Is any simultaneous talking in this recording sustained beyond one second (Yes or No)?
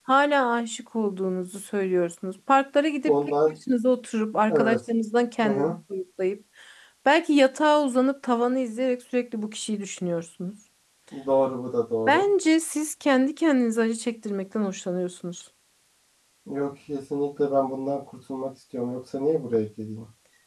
No